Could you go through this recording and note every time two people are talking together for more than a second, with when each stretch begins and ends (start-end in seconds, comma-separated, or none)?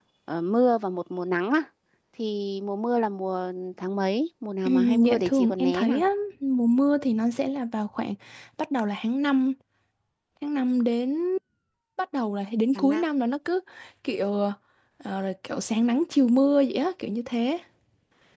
4.7-6.0